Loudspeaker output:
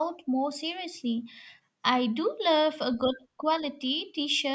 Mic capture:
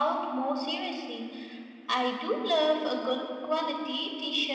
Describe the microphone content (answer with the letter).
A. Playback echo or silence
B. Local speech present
A